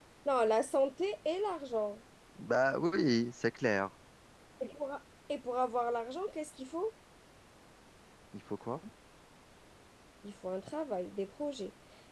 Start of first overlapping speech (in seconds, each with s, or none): none